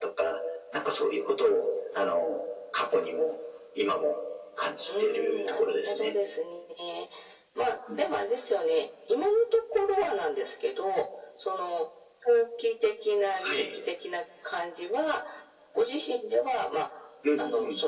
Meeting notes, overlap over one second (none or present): present